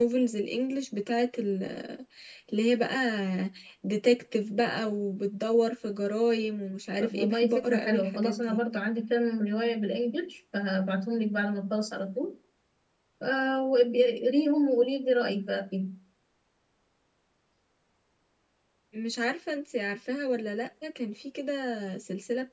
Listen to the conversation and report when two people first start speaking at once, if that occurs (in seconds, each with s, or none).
7.0 s